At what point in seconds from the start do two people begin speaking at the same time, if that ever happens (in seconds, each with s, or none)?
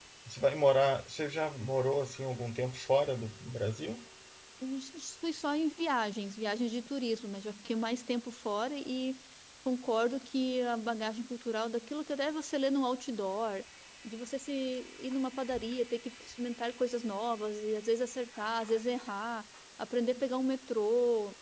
none